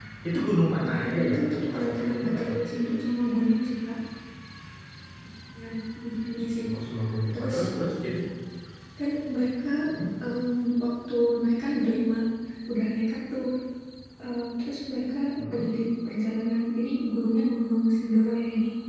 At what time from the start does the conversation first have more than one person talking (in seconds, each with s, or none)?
0.8 s